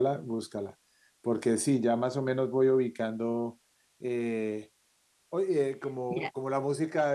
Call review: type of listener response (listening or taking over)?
listening